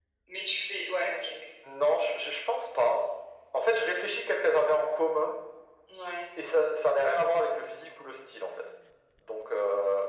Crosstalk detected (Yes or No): No